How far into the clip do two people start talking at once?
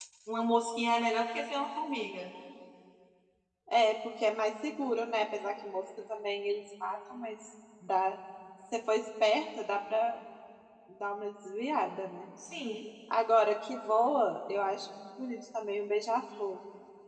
none

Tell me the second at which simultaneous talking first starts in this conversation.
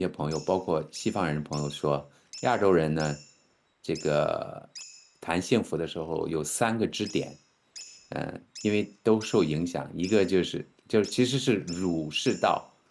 none

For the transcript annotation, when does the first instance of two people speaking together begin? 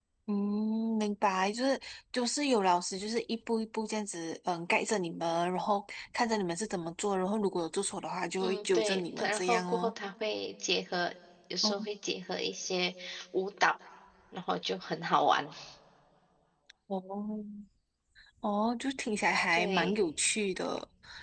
8 s

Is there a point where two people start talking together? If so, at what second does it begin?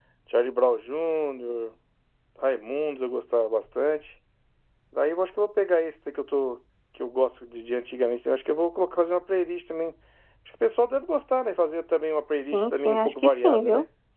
13 s

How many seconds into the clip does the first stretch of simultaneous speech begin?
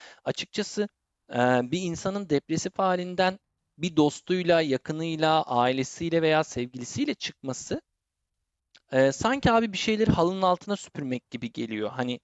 none

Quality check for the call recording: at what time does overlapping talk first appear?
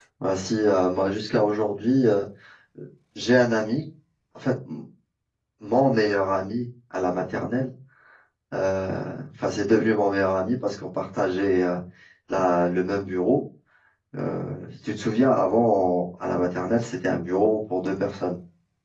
none

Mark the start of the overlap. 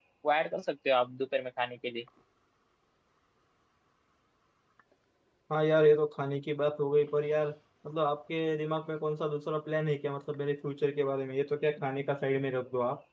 none

